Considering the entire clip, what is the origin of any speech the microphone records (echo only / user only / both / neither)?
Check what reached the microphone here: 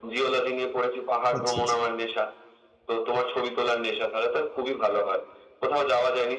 both